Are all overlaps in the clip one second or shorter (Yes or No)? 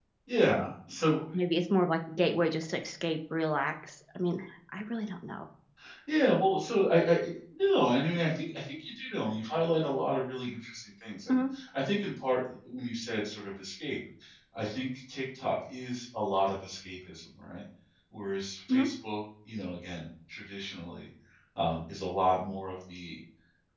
Yes